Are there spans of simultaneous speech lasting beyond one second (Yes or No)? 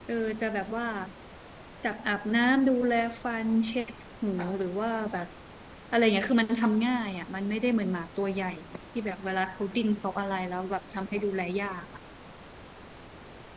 No